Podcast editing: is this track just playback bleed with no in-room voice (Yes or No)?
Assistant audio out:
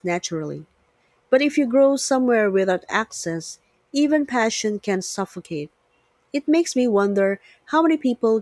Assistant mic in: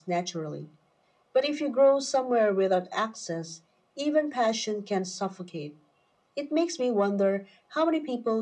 Yes